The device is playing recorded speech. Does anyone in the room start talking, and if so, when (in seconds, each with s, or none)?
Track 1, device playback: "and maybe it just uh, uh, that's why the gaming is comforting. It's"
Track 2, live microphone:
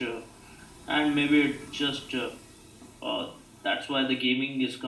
none